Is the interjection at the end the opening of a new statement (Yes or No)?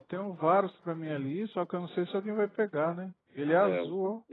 Yes